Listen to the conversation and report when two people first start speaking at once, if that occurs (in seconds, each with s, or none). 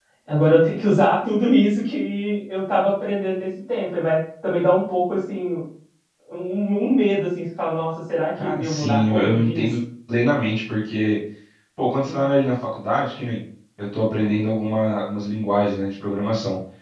8.4 s